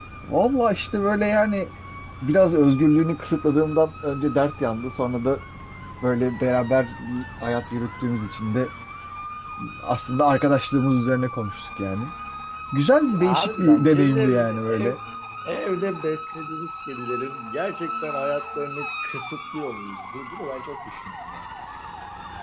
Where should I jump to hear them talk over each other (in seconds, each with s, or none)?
13.1 s